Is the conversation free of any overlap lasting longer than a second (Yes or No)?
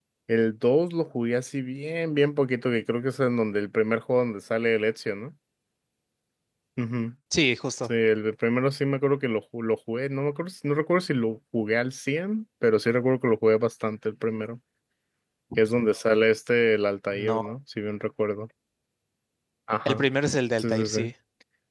Yes